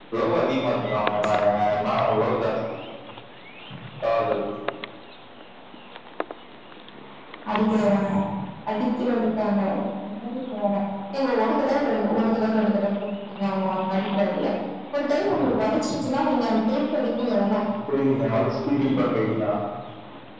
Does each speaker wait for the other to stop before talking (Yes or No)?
Yes